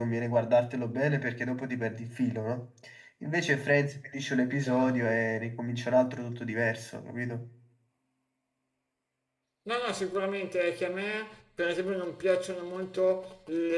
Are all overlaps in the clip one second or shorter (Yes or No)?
Yes